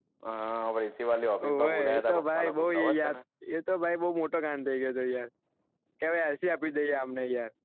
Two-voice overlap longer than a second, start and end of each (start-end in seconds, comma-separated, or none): 1.4-3.2